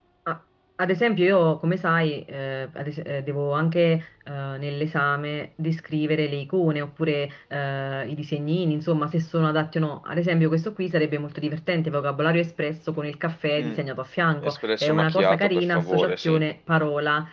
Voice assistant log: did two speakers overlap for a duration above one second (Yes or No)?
Yes